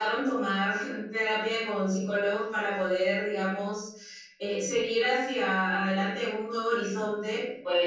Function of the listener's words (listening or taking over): taking over